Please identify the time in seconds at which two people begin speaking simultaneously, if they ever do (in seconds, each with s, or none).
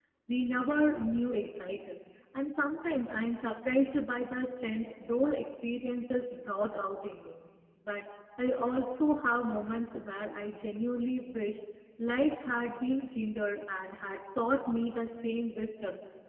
none